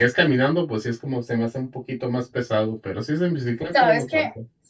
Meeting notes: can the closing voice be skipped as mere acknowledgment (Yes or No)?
No